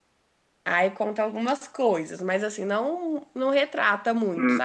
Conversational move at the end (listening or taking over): taking over